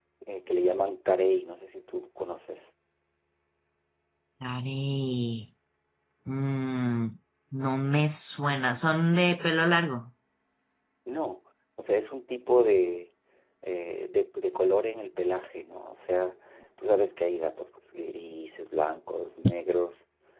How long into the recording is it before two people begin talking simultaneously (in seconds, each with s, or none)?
none